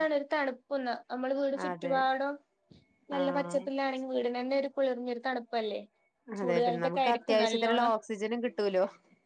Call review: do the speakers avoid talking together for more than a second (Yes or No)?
No